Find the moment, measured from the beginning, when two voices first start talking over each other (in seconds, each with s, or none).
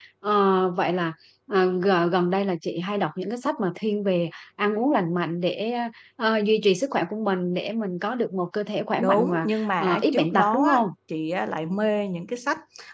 9.0 s